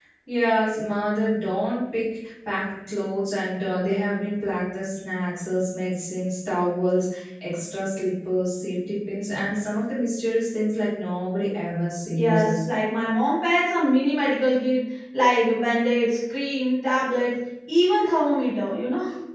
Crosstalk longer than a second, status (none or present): none